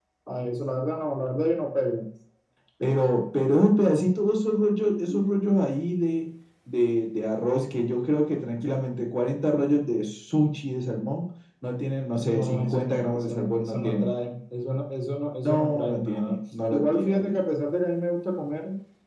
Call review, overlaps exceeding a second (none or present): present